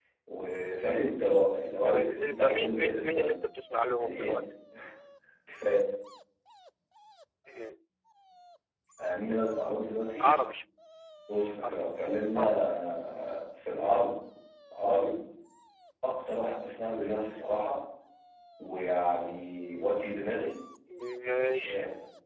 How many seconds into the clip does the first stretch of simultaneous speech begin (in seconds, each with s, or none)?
1.8 s